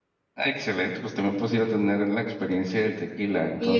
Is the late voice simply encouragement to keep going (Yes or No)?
No